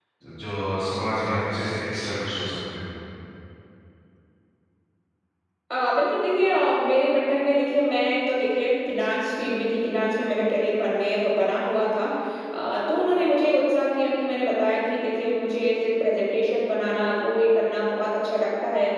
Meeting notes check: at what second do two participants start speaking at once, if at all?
none

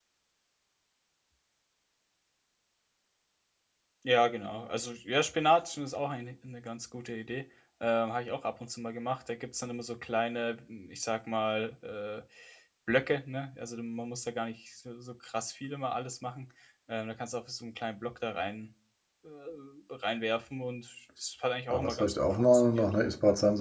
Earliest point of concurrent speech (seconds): 22 s

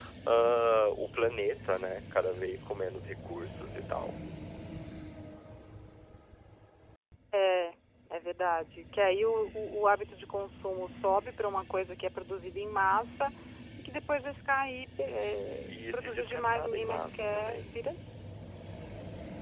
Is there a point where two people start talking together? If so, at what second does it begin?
16 s

